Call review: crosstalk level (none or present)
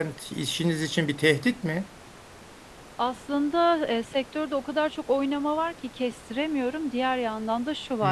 none